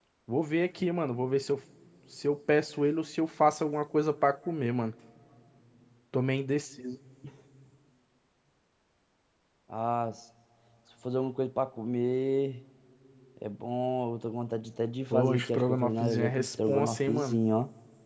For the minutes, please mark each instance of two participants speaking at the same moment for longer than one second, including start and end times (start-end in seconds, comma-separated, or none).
15.1-17.4